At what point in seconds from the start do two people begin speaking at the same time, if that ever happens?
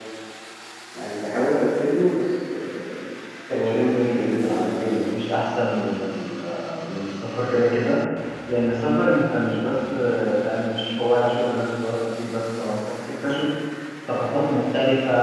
3.5 s

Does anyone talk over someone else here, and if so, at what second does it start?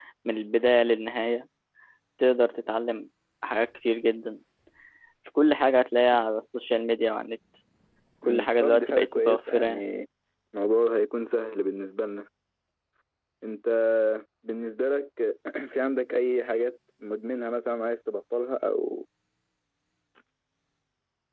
8.2 s

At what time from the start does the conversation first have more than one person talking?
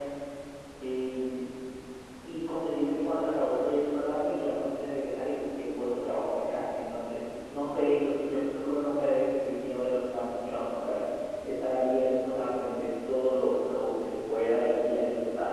none

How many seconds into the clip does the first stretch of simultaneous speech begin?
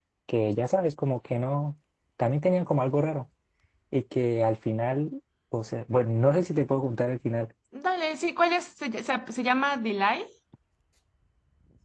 none

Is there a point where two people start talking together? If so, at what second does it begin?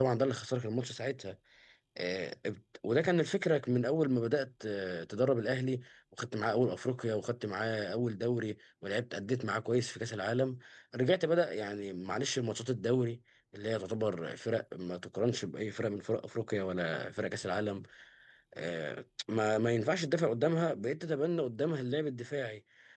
none

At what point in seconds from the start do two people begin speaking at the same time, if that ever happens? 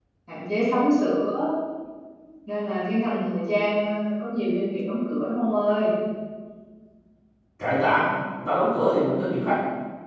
none

